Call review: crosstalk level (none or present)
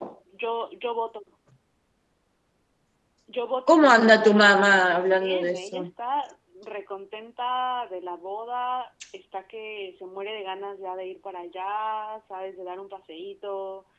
present